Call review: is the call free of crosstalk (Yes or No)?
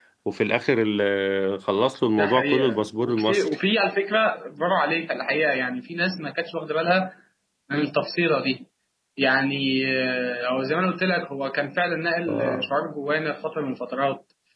No